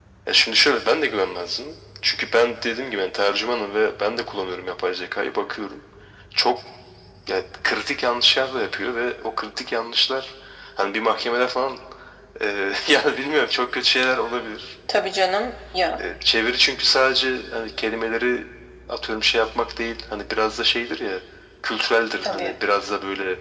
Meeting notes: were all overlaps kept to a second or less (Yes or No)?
Yes